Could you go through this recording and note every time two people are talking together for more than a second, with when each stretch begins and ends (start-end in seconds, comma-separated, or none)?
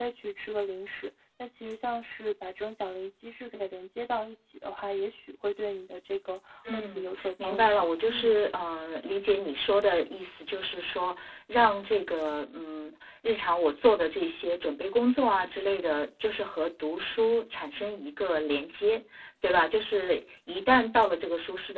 6.7-8.3